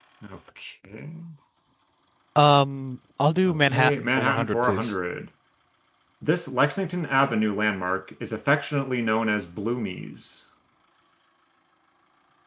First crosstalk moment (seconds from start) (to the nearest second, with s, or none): 3 s